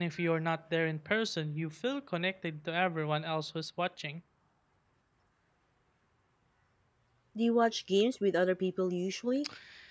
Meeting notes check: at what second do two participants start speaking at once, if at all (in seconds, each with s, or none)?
none